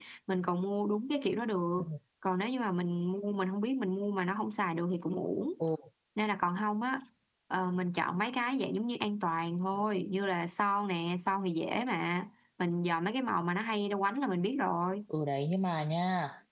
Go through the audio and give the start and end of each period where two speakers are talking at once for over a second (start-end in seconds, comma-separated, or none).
none